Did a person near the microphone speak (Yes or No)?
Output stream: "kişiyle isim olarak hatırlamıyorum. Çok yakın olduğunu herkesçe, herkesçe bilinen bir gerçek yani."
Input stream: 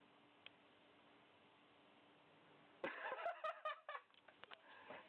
No